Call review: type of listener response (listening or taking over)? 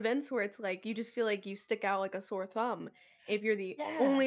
listening